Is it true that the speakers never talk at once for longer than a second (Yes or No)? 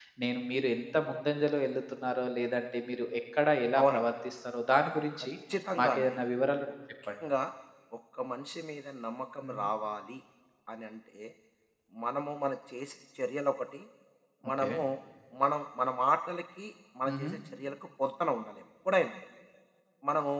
Yes